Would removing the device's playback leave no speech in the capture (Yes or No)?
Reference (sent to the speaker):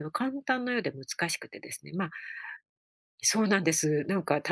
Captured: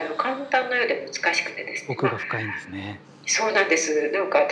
No